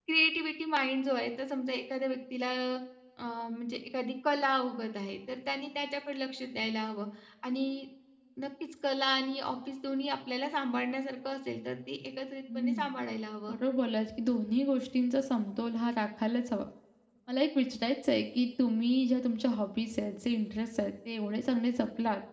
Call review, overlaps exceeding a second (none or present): none